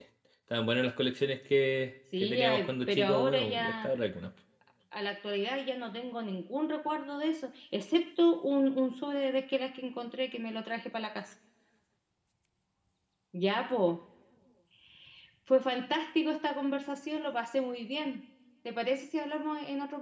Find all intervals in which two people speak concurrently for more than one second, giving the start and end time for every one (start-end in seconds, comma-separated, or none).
2.2-3.9